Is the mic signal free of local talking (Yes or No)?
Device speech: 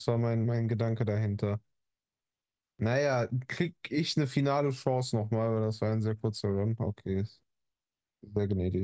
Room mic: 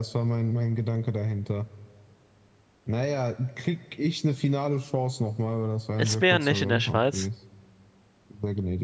No